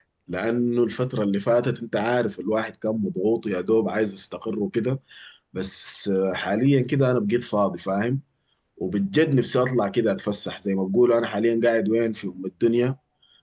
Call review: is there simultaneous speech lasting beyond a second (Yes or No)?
No